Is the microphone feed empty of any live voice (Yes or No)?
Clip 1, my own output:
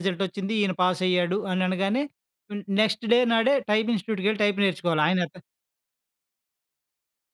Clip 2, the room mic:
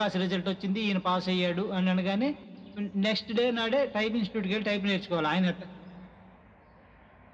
Yes